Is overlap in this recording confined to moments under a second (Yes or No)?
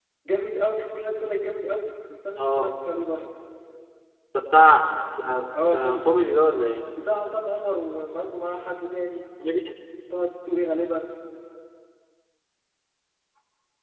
Yes